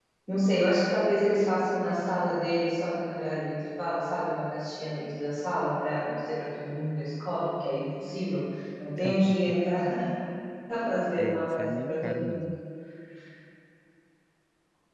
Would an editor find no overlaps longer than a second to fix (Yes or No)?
No